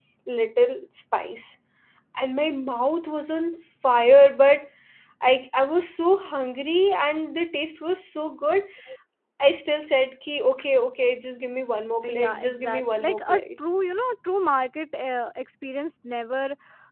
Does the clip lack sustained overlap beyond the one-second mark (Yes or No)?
No